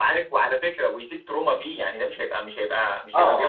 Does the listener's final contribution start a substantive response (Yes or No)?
No